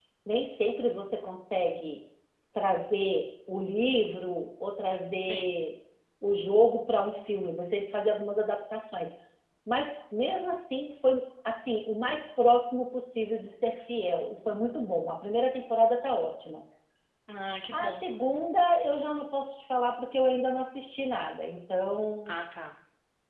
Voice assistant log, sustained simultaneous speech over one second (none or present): none